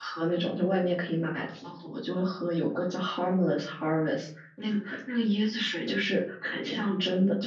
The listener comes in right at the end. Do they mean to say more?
No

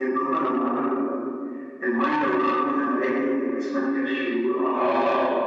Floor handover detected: Yes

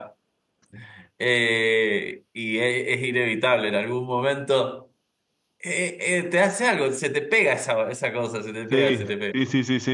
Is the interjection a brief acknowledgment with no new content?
No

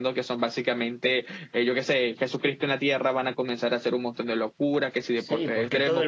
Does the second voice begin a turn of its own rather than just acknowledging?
Yes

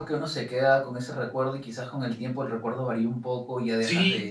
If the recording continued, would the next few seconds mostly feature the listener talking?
Yes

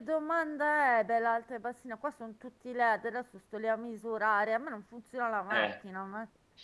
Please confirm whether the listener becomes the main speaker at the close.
Yes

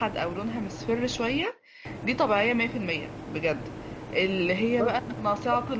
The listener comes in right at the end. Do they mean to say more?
No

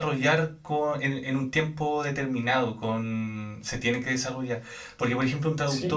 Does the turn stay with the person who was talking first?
No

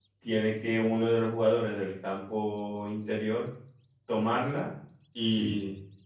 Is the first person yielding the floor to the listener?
No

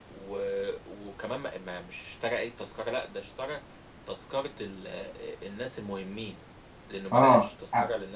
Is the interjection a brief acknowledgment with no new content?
No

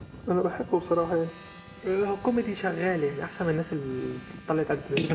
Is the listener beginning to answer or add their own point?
Yes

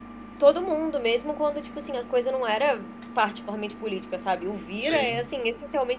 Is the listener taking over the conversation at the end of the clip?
No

